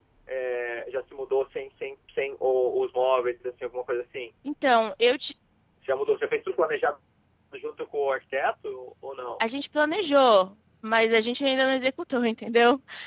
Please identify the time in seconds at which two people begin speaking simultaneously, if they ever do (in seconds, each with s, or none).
none